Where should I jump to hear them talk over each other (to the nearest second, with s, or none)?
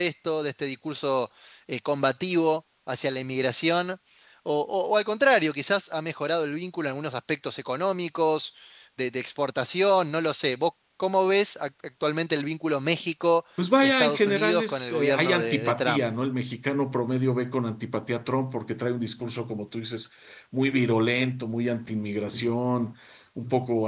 14 s